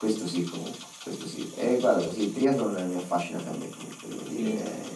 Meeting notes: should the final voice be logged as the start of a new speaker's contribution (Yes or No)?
Yes